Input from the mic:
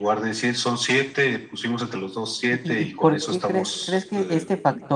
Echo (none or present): present